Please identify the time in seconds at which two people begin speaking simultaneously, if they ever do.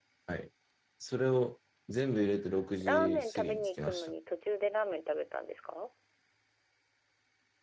2.8 s

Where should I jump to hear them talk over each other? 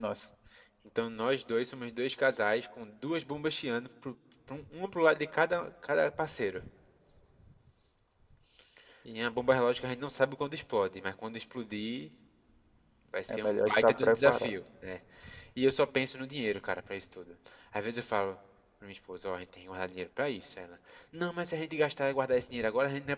13.3 s

